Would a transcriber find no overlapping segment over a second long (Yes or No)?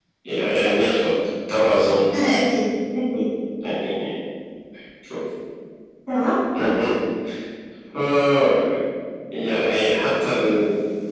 Yes